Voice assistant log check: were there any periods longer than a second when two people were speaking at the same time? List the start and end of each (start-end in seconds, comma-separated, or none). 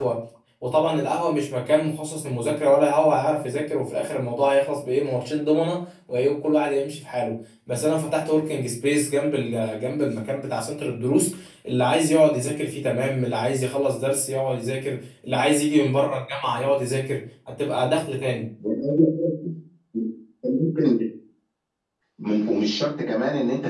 none